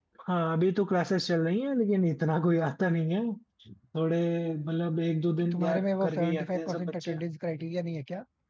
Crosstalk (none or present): present